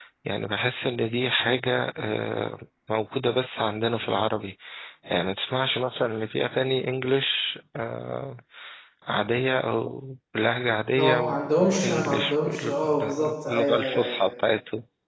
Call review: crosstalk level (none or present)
present